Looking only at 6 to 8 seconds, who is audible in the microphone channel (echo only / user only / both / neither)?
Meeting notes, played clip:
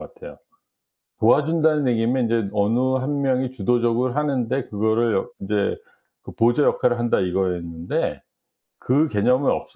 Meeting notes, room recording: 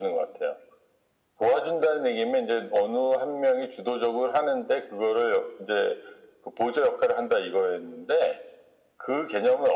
echo only